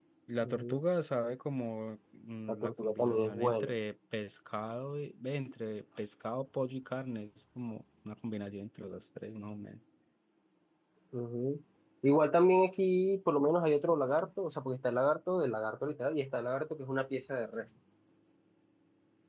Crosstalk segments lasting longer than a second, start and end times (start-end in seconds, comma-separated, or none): 2.5-3.7